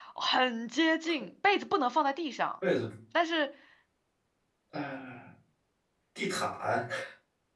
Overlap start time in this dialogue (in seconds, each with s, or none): none